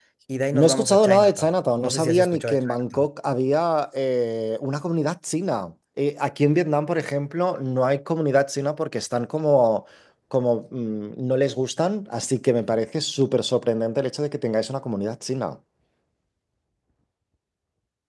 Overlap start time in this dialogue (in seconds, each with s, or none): 0.5 s